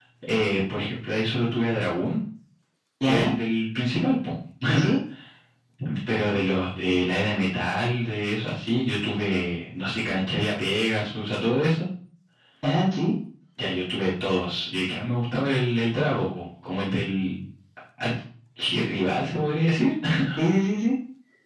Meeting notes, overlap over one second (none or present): none